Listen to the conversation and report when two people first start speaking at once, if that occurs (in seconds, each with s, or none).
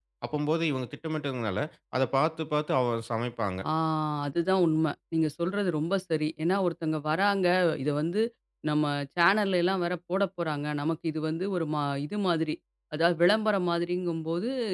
none